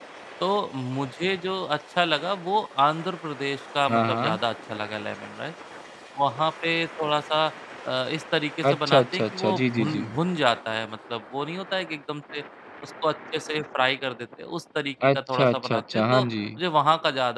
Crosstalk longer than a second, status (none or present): present